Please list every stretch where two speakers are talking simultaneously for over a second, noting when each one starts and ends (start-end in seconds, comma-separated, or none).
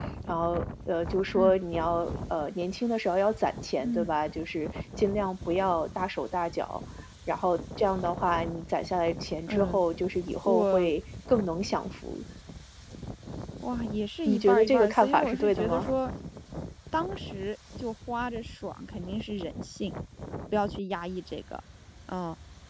14.3-15.9